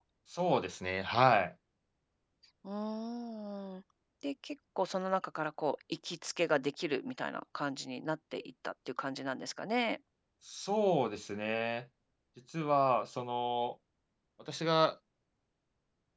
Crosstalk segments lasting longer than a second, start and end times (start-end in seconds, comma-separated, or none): none